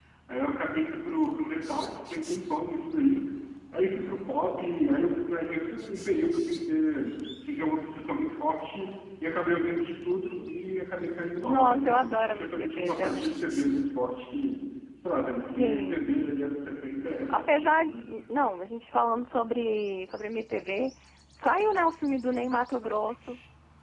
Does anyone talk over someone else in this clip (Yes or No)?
Yes